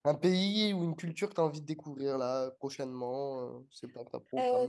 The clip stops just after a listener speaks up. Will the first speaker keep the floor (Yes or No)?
No